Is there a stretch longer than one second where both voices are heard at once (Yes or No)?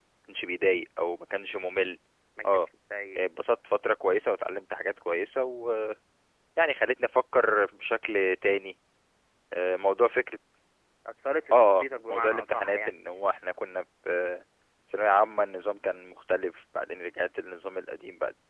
Yes